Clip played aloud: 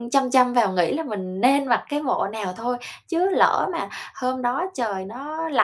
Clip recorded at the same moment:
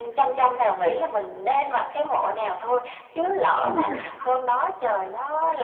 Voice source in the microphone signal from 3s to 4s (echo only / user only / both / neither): both